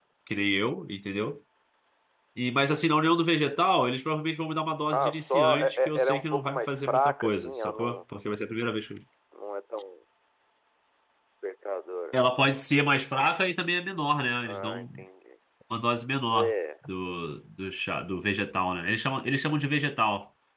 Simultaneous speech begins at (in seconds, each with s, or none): 4.9 s